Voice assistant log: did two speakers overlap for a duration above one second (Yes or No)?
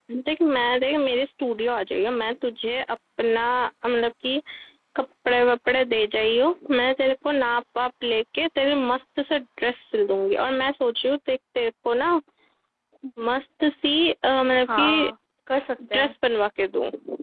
No